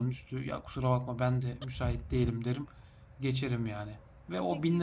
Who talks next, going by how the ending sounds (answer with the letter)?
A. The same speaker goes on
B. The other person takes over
A